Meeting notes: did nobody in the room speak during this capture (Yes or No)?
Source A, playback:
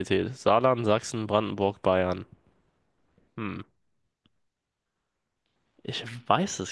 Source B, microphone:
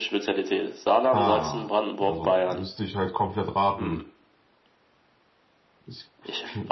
No